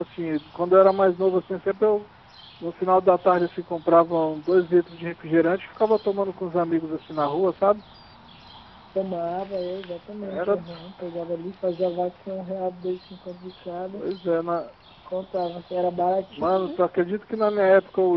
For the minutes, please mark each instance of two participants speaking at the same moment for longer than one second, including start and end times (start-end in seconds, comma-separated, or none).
none